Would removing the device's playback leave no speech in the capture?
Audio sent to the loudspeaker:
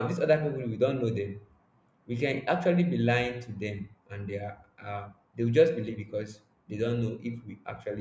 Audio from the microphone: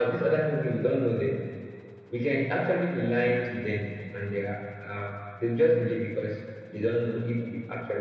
Yes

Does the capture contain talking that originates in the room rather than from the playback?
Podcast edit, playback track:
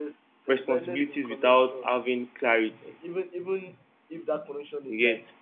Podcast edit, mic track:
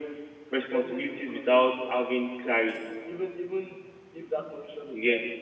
No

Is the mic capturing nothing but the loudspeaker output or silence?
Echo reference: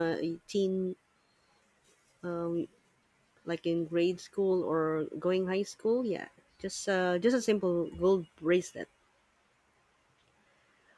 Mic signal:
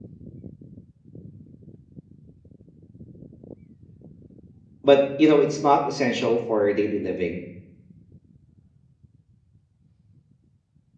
No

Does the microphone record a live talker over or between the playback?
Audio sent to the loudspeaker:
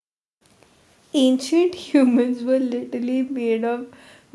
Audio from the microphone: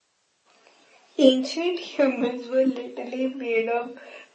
No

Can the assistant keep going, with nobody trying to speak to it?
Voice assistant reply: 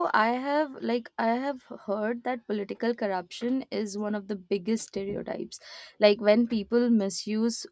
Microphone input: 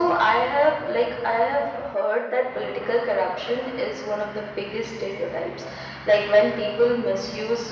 Yes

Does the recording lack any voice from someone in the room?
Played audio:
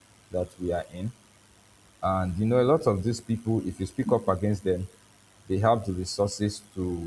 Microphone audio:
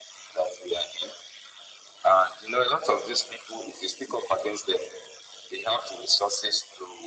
Yes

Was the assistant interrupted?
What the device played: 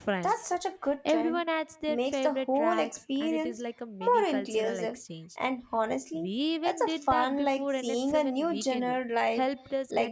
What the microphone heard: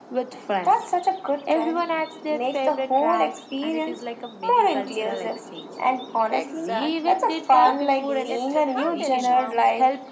Yes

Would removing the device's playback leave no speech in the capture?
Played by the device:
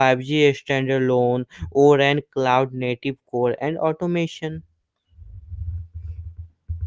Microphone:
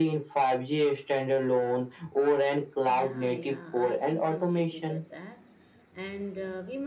No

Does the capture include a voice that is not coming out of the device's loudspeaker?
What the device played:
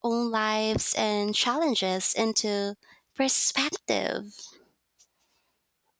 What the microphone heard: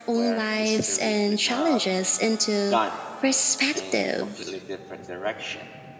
Yes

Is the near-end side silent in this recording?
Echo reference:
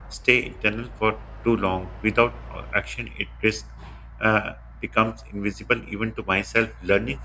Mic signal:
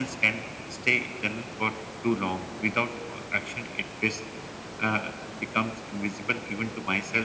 Yes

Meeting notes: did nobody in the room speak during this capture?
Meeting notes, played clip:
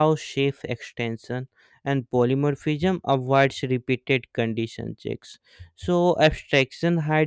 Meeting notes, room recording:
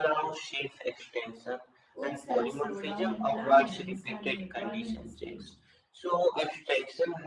No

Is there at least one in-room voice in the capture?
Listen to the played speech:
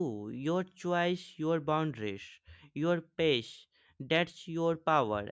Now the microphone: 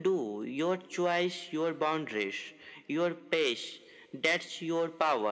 No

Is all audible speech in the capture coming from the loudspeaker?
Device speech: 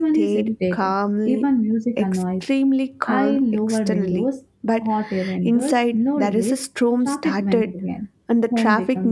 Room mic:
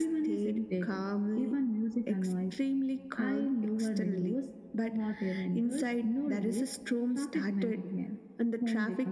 Yes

